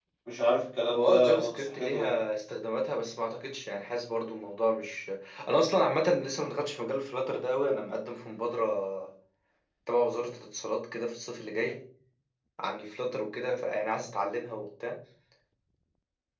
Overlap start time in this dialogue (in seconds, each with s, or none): 0.9 s